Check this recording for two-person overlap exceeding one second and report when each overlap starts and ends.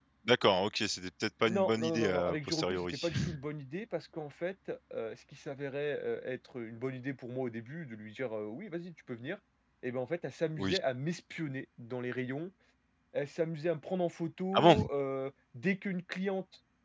1.5-3.1

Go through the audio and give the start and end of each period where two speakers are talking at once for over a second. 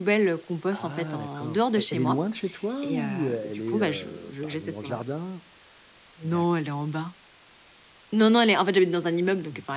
0.7-2.2, 2.8-5.0

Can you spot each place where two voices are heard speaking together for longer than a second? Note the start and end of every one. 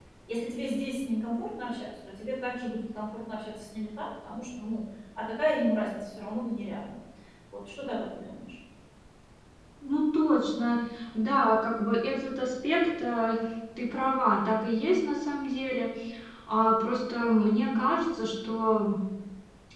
none

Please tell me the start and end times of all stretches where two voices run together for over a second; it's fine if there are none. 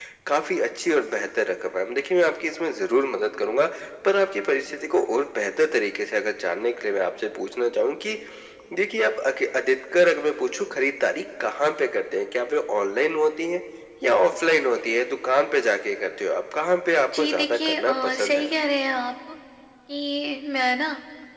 17.1-18.5

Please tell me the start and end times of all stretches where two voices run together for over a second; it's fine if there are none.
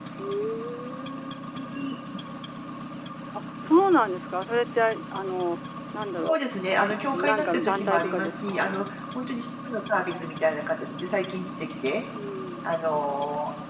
7.1-8.8

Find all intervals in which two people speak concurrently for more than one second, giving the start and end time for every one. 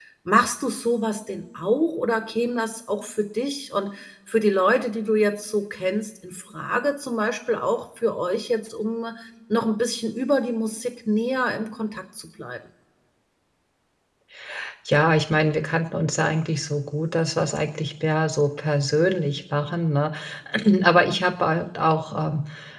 none

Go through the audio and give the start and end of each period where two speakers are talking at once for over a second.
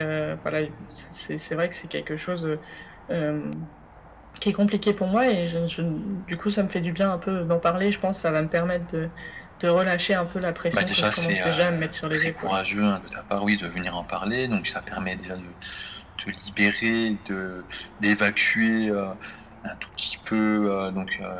10.7-12.6

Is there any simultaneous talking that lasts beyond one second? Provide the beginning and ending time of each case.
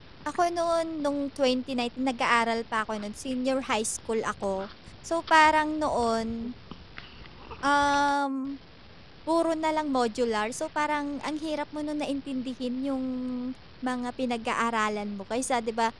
none

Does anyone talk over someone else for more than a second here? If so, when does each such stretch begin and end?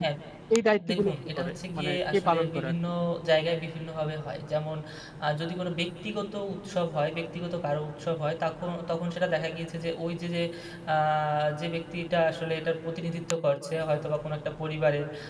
0.9-2.7

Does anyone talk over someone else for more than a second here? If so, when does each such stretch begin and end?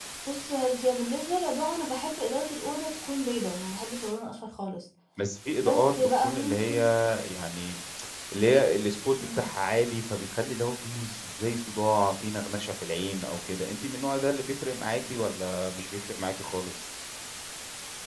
5.6-6.8

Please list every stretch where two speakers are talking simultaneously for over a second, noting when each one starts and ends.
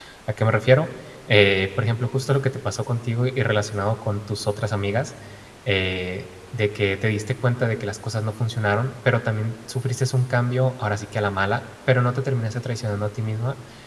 none

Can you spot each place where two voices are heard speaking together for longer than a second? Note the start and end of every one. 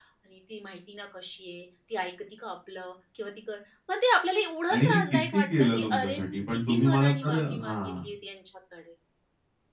4.7-8.0

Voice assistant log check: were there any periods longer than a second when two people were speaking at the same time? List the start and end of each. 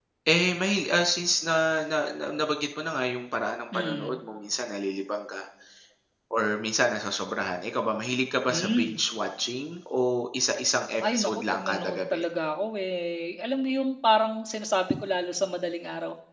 11.0-12.2

